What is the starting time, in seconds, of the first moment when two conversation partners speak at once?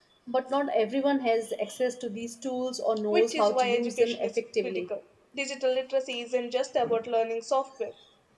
3 s

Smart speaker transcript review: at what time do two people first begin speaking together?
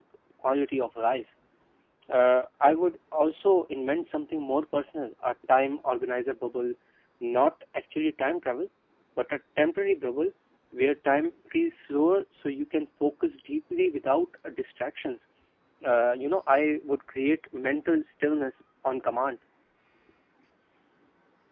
none

